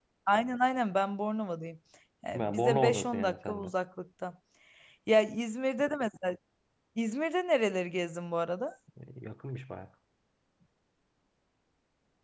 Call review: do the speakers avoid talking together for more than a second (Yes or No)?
No